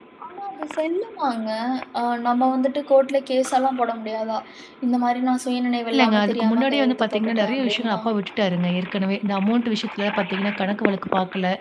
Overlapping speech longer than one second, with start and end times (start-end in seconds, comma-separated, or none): 5.9-8.1